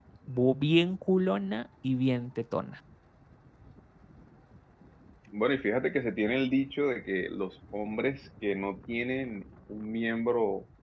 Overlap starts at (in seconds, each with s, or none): none